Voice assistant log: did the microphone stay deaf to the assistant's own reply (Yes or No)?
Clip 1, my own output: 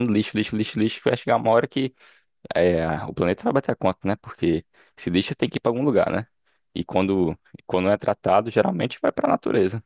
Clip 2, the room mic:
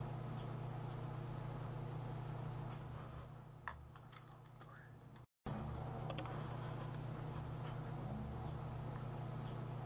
Yes